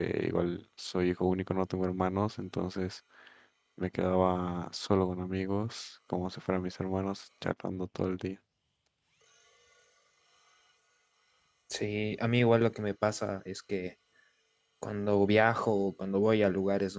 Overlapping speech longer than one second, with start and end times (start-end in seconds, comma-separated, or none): none